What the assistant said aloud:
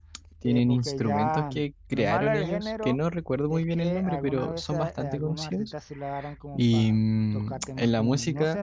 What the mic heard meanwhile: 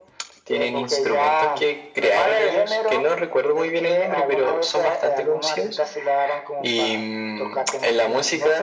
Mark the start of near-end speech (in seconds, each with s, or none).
none